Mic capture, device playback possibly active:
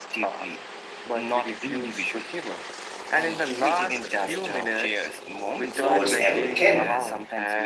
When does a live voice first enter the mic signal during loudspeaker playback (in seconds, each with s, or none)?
5.7 s